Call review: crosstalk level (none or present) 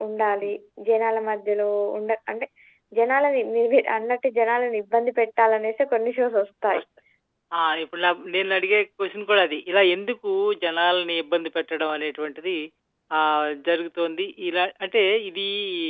none